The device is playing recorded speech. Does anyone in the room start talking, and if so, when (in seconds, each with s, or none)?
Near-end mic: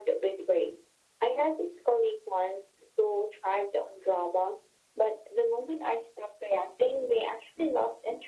none